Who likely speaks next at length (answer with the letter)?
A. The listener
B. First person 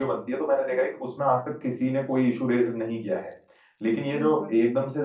B